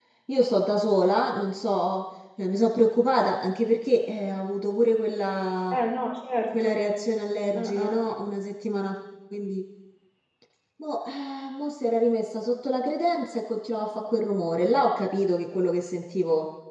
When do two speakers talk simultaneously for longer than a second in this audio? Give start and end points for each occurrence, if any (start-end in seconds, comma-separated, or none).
none